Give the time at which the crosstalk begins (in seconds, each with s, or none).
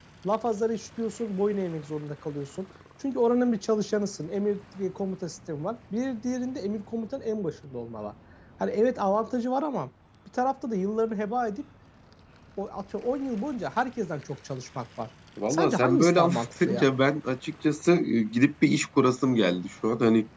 15.4 s